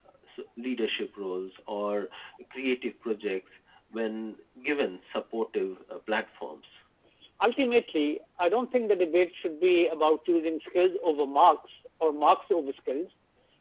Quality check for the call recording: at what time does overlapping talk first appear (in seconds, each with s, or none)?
none